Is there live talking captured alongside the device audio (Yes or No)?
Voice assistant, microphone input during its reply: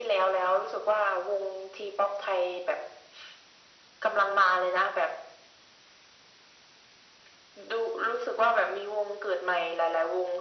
No